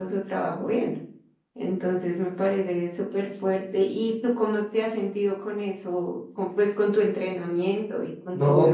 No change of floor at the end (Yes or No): No